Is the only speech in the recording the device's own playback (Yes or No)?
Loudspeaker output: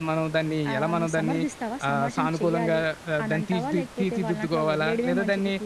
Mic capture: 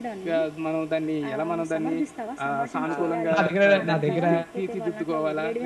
No